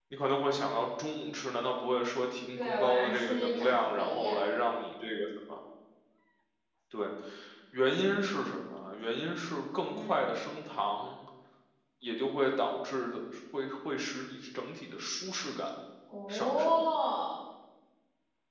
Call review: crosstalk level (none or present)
present